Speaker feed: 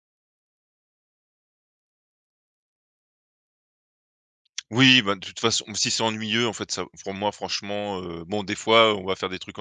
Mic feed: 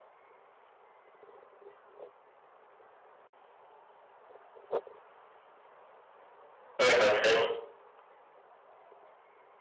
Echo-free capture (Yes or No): Yes